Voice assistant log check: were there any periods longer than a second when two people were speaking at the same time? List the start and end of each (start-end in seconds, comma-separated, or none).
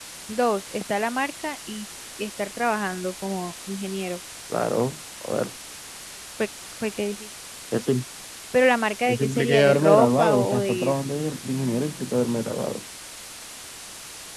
9.1-10.9